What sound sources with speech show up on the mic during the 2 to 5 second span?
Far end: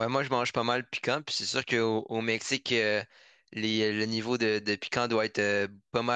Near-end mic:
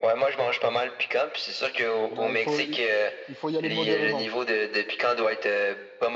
both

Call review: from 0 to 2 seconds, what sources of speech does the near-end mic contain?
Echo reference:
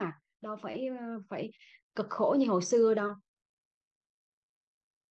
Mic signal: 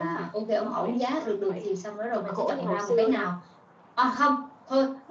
both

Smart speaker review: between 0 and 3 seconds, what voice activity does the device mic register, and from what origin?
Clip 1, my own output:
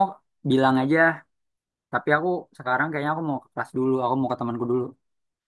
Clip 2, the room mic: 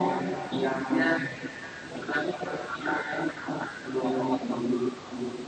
echo only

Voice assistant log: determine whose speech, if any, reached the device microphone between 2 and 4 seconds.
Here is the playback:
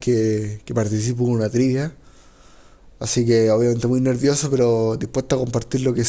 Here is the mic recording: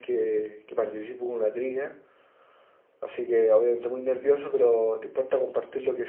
echo only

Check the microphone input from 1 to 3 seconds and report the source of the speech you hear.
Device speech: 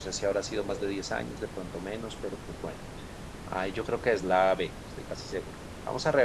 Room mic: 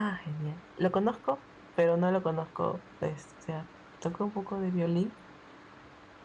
user only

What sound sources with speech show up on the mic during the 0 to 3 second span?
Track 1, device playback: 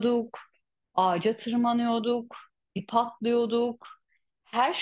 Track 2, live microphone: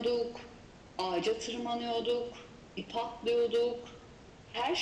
echo only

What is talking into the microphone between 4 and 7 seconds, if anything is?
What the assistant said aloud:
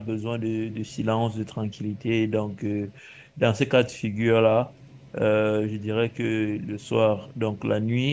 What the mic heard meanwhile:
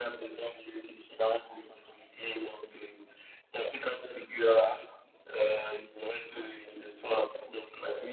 echo only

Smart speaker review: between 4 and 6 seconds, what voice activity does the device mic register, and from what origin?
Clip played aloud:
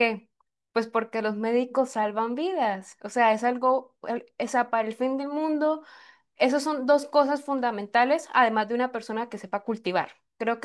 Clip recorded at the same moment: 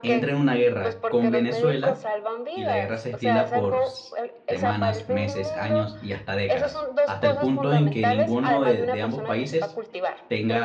both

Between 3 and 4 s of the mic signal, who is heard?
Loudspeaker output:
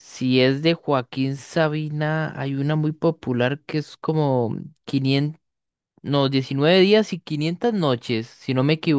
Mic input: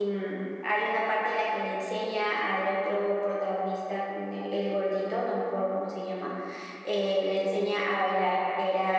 user only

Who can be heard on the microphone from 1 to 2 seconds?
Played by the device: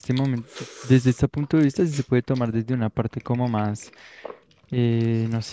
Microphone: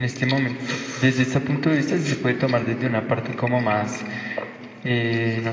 echo only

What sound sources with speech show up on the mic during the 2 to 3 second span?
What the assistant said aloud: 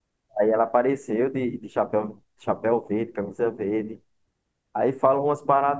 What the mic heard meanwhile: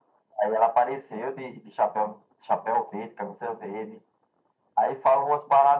echo only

